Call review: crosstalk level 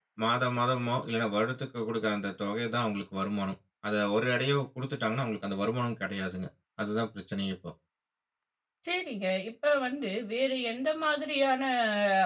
none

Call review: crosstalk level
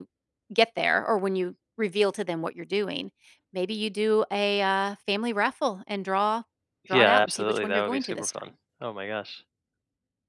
present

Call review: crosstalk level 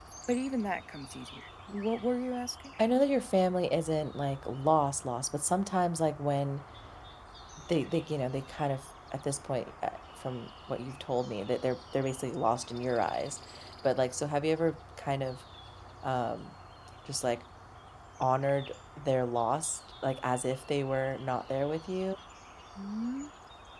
none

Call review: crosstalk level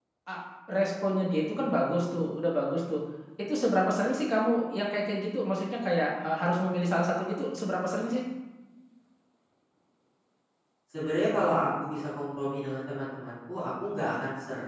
none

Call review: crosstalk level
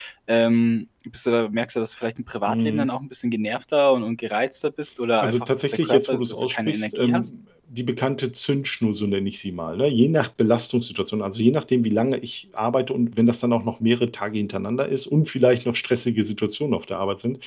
present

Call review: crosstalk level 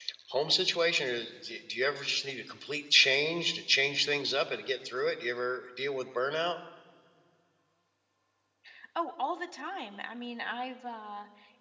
none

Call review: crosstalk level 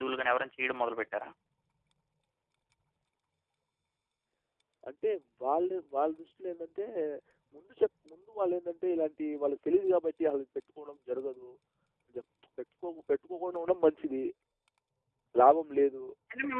none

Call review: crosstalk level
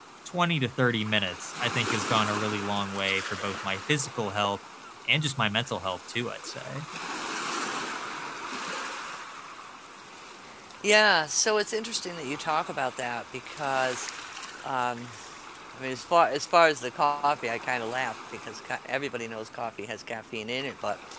none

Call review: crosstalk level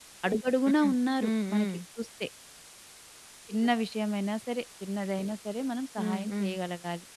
present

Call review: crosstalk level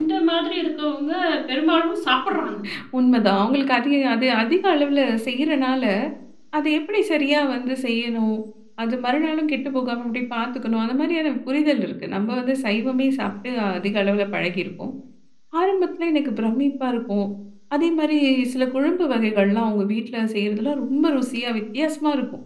none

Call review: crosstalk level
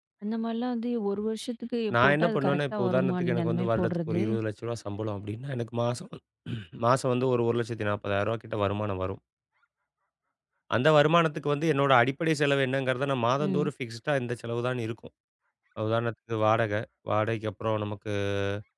present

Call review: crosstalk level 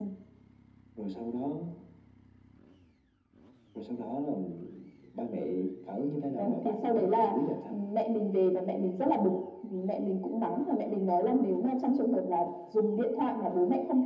present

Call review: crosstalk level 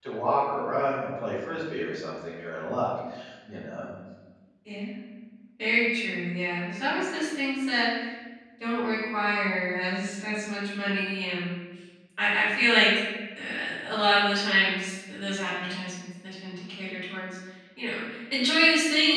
none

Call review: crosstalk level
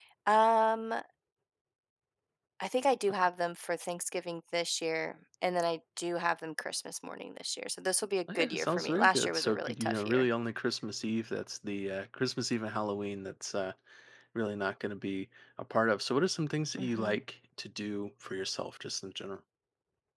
present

